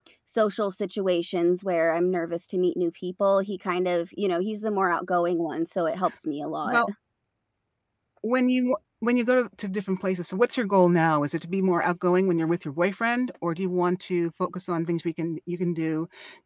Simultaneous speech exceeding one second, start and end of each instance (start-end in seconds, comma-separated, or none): none